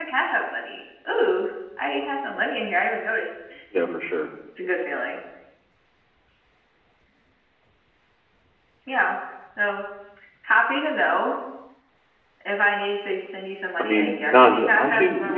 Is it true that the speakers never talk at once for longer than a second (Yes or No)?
No